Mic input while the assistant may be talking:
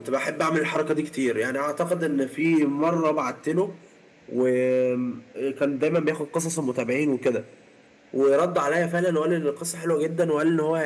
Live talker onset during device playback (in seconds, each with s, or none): none